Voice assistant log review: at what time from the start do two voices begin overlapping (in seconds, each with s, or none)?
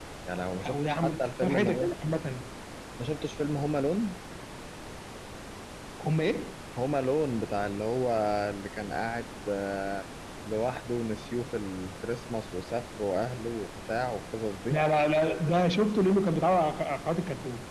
0.6 s